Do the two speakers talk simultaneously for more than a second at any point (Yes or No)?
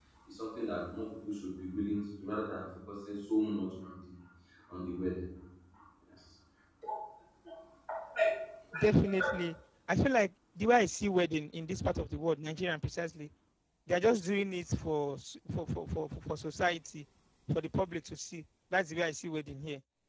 No